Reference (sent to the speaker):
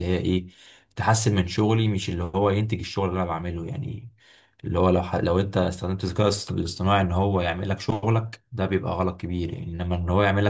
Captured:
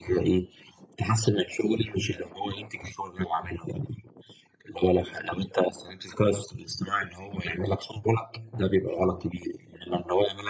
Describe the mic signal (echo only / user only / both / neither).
echo only